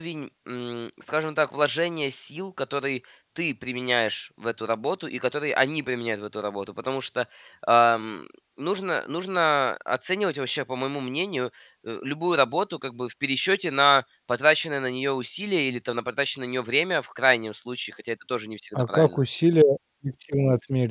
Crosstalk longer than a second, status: none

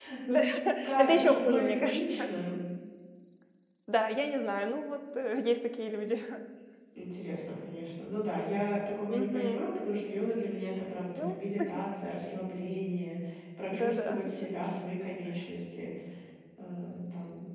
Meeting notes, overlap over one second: present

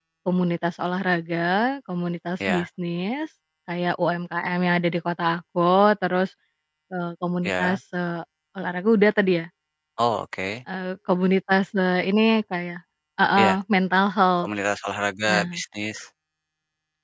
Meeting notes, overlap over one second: none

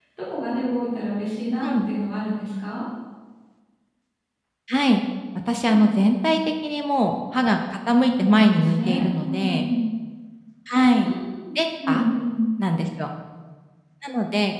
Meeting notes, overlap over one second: present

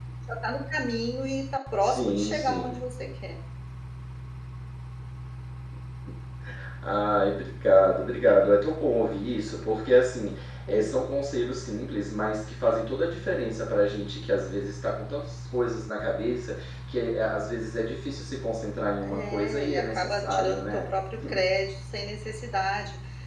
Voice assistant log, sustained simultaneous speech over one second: present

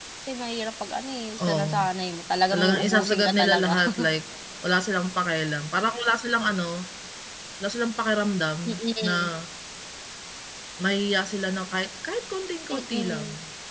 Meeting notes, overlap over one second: present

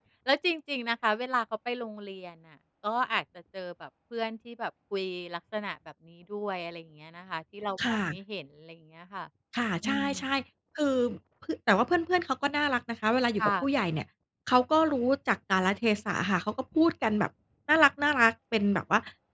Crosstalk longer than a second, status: none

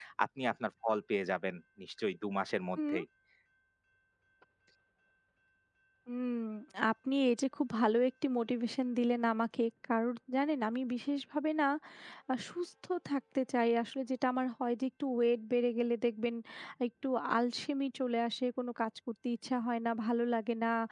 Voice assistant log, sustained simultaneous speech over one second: none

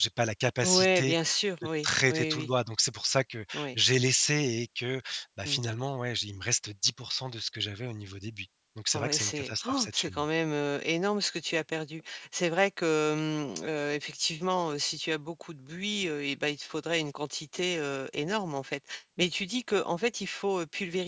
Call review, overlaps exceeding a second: present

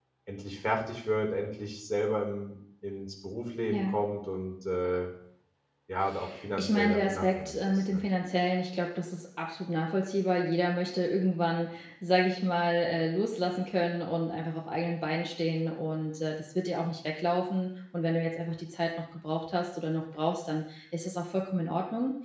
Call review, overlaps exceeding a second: present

